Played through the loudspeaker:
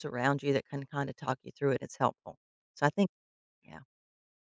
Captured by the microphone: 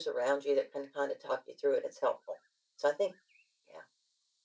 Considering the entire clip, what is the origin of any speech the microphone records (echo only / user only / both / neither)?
echo only